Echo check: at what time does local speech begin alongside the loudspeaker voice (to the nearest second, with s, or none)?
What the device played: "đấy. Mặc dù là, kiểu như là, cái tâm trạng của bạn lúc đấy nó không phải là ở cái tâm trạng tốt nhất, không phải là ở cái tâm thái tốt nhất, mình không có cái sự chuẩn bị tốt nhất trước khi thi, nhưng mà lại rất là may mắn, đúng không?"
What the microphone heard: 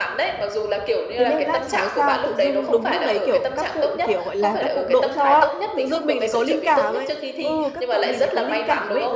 1 s